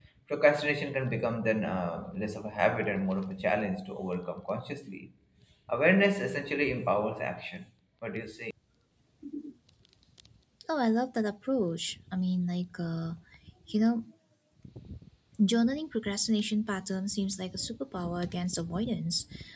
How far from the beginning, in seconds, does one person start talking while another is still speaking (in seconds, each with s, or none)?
none